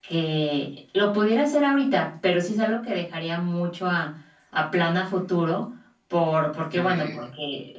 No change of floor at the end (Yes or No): Yes